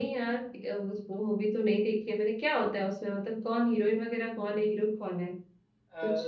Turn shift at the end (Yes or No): Yes